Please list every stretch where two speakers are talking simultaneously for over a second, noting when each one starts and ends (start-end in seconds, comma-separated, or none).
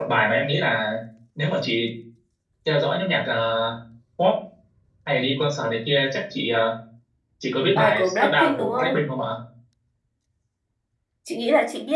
7.8-9.0